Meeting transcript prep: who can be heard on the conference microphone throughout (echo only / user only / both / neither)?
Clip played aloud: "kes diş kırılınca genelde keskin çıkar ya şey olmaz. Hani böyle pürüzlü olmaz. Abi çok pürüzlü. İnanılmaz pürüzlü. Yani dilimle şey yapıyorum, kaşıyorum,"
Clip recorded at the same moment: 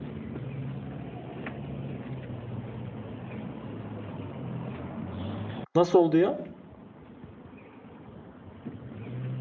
user only